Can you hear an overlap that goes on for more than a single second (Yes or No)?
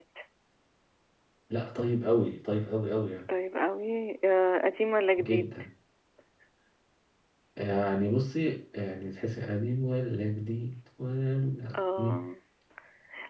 No